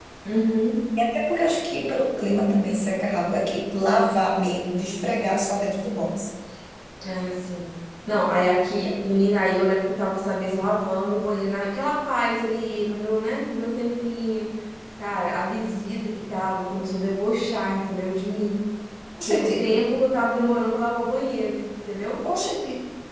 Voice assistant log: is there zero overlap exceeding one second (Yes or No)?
Yes